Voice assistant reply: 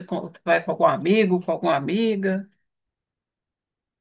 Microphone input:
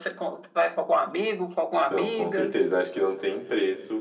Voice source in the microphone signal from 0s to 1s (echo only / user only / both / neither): echo only